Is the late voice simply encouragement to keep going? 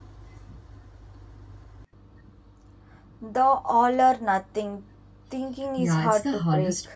No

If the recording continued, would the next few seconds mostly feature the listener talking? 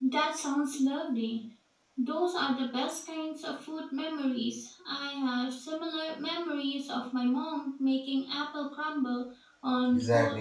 Yes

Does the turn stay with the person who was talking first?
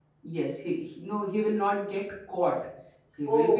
Yes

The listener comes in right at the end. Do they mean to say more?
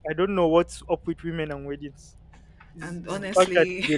No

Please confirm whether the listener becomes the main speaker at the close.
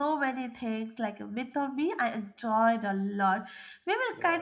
No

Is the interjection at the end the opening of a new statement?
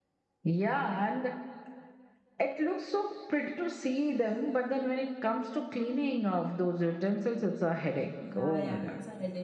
Yes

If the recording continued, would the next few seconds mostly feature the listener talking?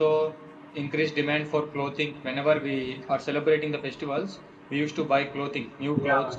Yes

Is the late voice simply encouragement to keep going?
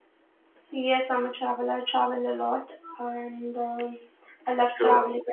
Yes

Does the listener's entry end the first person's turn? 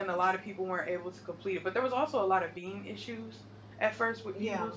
No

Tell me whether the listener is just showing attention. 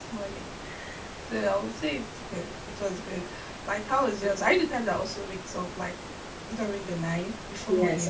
No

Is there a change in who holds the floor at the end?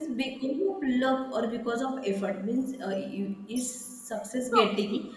No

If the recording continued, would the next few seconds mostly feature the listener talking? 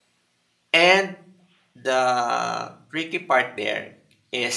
No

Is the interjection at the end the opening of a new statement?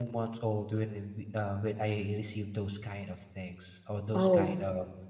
No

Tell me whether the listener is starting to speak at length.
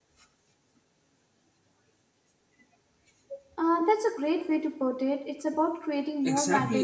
Yes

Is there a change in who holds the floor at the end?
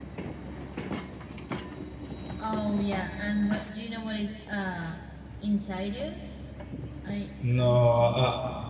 Yes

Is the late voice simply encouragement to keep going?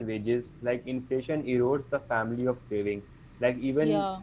Yes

